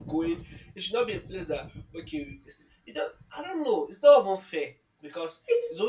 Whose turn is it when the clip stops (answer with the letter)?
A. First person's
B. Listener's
A